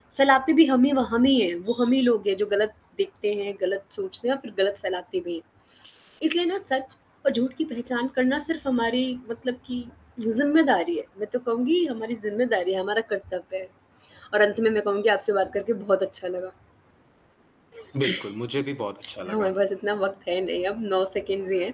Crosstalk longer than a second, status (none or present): none